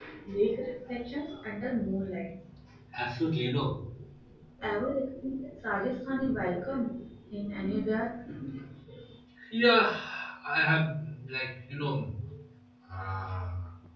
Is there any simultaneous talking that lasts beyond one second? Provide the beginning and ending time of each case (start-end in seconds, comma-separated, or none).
none